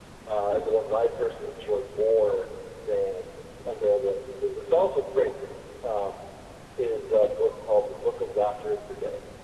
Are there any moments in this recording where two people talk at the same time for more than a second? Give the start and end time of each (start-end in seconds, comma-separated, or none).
none